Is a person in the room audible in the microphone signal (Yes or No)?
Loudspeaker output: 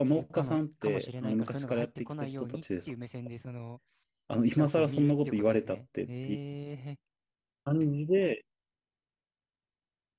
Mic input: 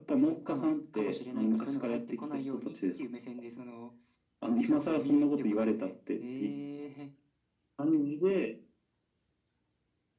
No